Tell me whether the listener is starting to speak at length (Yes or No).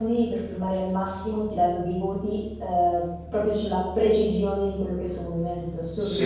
Yes